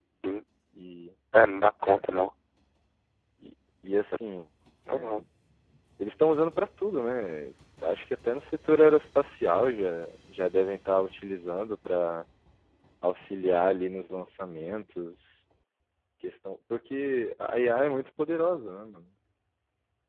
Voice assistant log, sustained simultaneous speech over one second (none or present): none